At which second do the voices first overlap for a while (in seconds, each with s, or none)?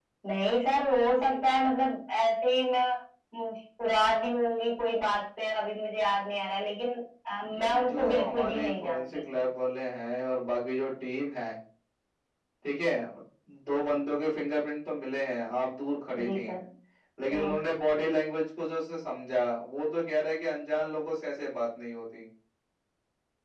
7.6 s